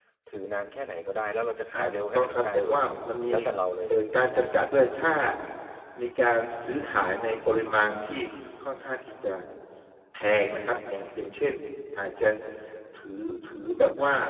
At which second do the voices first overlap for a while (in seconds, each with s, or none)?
1.7 s